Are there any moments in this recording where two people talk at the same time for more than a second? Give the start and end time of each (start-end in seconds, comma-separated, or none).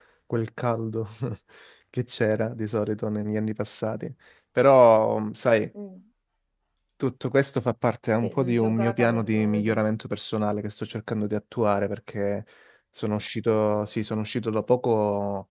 8.2-9.8